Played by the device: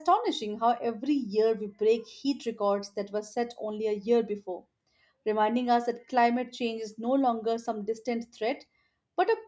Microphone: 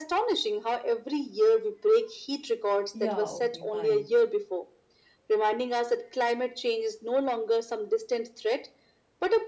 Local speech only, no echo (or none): Yeah, okay, fine.